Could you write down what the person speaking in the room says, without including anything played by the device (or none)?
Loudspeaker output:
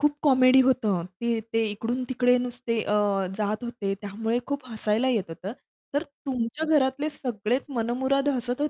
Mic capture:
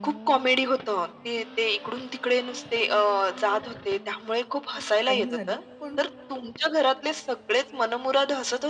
खूप टाईम झाला, पण